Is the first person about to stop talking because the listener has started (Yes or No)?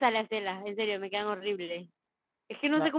No